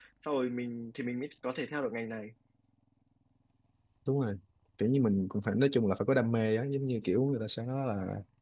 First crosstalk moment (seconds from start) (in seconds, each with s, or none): none